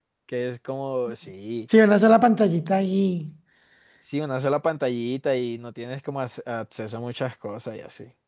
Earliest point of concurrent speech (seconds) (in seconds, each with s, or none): none